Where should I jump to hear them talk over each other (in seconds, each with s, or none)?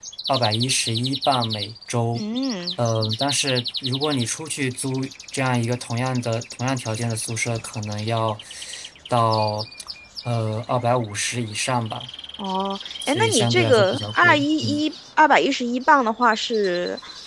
13.1 s